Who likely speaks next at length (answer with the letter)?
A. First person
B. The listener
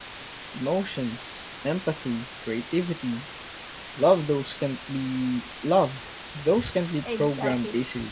B